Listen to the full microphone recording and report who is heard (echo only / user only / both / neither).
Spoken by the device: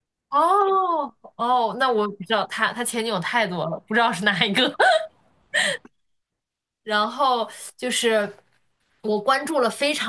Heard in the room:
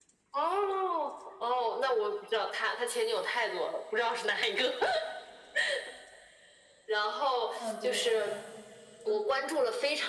both